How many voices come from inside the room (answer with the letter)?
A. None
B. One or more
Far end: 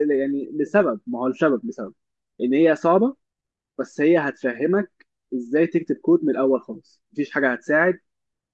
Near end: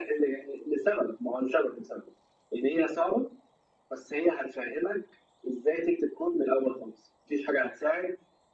A